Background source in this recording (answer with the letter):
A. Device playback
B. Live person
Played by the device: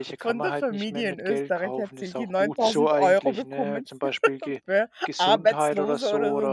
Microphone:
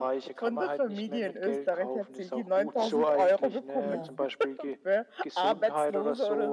B